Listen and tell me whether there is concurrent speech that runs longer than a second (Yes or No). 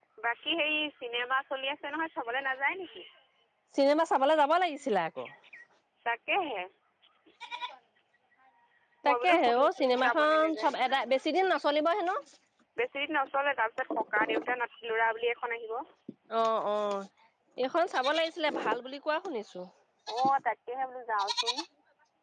Yes